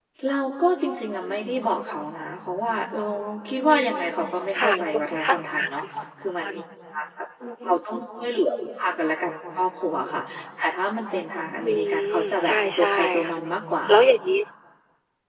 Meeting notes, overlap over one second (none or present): present